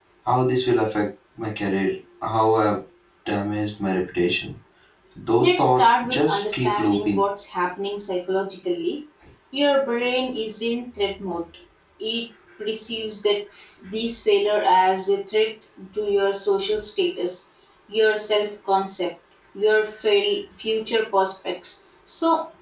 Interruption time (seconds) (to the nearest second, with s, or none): 5 s